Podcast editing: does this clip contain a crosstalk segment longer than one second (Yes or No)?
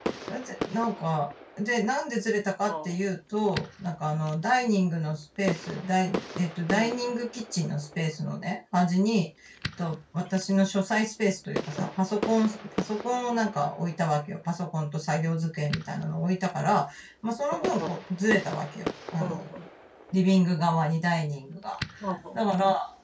No